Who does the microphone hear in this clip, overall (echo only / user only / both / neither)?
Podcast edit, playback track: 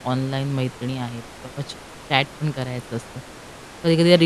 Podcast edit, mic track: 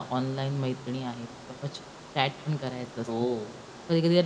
both